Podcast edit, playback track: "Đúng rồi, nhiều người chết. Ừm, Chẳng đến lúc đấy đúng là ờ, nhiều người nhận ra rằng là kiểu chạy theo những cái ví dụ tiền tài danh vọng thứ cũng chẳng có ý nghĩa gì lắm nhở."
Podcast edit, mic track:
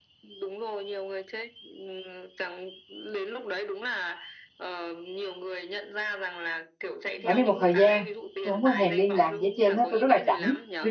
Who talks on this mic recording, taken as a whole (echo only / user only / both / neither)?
both